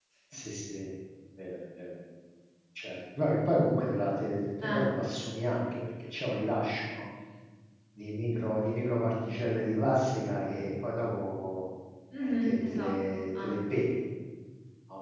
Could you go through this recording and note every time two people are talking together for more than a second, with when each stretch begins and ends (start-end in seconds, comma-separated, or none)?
12.2-13.8